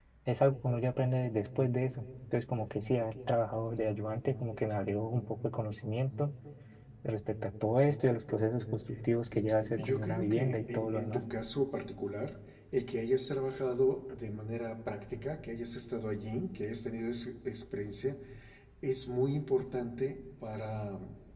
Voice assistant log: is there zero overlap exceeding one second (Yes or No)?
No